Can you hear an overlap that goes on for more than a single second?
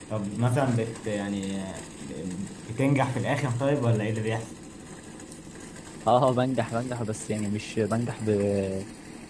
No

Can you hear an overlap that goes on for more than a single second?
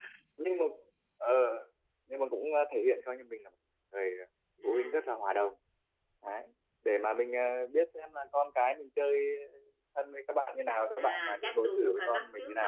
Yes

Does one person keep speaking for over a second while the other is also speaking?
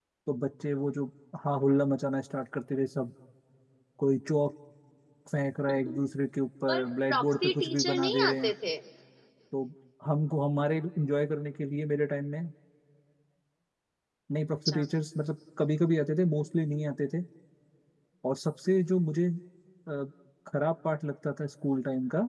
Yes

